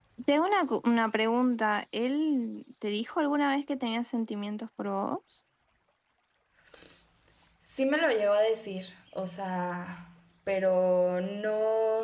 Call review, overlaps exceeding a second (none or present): none